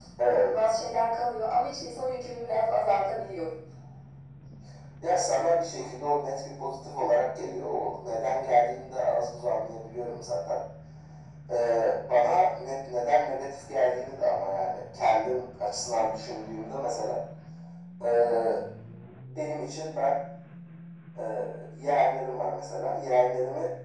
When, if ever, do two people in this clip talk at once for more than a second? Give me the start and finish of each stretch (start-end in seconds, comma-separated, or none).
none